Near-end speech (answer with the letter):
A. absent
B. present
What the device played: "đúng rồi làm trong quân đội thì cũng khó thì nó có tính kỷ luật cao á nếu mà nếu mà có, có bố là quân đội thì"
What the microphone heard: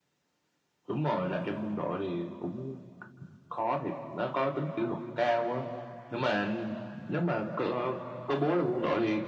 A